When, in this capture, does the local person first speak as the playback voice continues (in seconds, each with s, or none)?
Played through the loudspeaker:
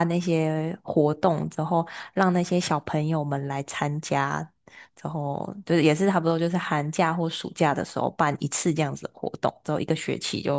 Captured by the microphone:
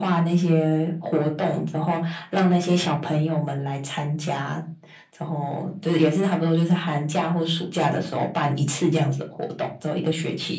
none